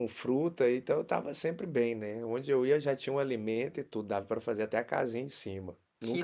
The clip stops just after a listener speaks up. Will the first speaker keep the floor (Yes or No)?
Yes